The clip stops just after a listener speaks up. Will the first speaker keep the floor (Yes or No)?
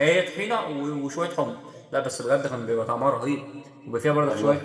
Yes